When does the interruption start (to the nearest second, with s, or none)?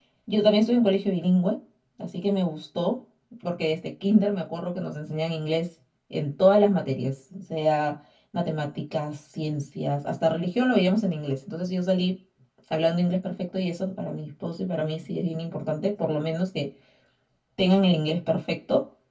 none